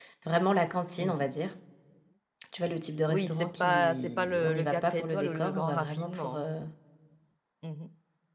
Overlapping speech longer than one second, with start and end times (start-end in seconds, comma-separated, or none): 3.1-6.4